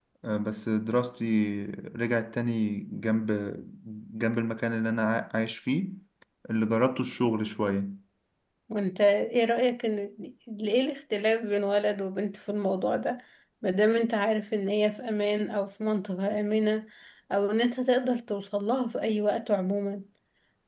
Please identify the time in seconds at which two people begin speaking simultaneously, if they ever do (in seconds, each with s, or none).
none